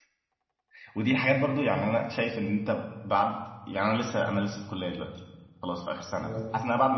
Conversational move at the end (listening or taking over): listening